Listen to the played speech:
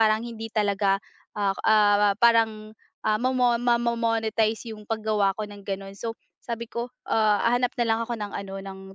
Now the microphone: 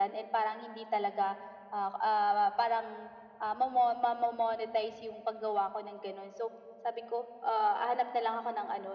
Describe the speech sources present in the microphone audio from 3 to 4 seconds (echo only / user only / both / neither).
echo only